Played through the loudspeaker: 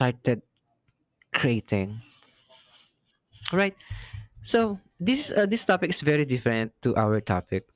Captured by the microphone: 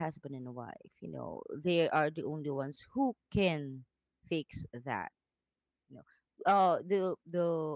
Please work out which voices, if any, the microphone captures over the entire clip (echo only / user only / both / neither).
user only